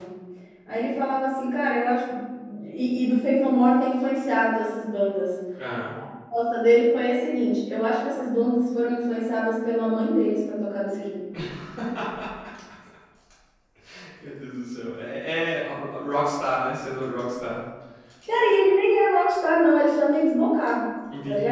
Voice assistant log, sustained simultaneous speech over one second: none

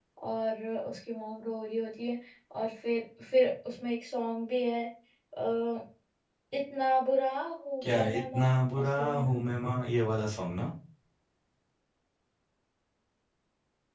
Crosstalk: present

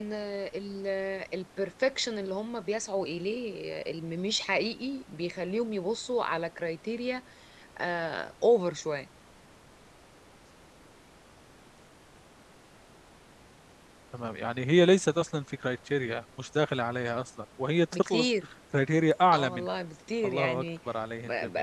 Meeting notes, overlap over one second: none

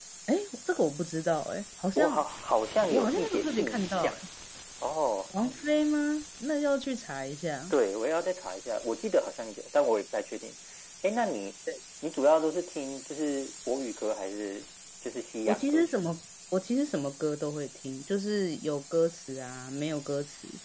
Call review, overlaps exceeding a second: present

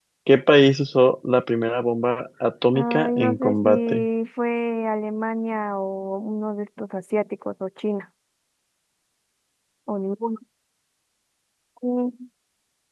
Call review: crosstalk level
present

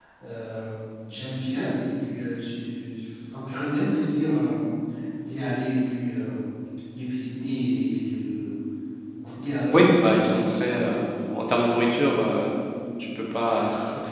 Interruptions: present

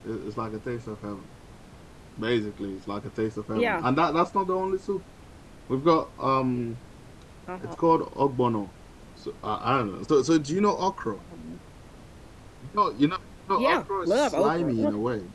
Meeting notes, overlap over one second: present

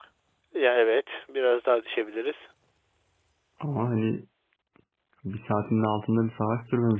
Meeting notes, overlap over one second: none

